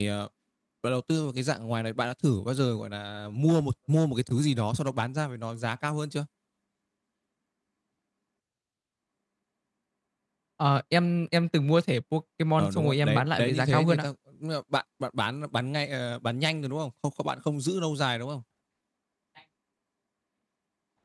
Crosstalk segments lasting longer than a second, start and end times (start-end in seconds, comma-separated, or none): 12.6-14.1